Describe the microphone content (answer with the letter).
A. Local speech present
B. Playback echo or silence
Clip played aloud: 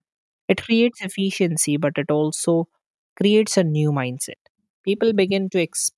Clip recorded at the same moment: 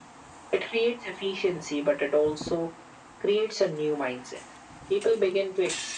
B